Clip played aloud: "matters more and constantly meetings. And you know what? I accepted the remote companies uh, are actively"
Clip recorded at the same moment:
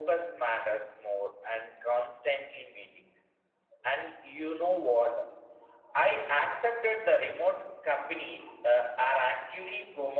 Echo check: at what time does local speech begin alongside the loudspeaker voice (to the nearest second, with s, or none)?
none